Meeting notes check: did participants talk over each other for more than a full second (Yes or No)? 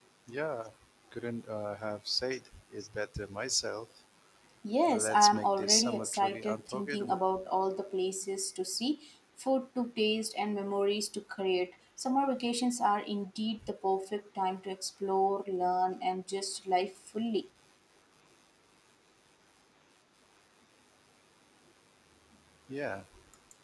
Yes